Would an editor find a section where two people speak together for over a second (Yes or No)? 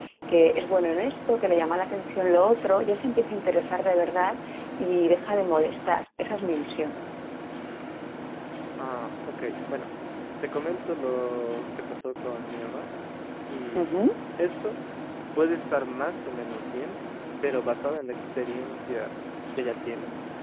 No